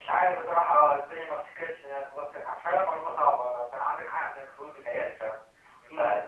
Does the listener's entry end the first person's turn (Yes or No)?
Yes